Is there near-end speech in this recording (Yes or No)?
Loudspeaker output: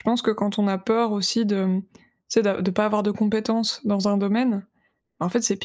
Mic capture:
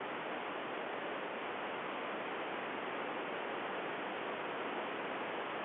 No